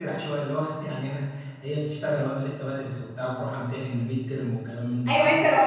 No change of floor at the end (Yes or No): No